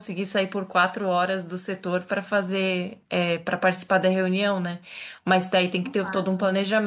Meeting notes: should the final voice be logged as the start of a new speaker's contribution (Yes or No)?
No